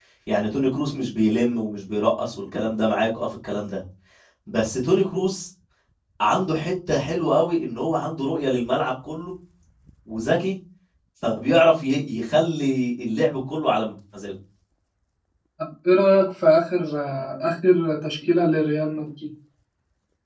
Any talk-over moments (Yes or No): No